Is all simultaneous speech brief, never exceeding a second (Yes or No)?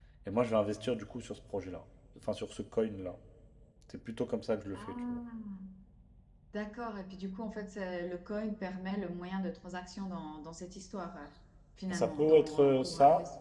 No